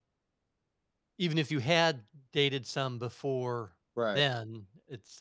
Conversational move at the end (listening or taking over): listening